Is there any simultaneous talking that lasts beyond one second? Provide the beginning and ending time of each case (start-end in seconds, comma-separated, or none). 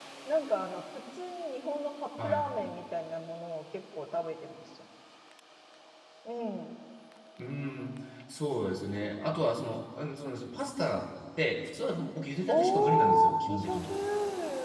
12.5-13.8